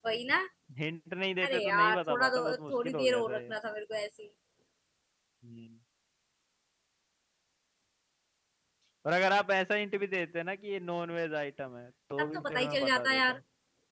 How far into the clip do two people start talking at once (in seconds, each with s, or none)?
1.4 s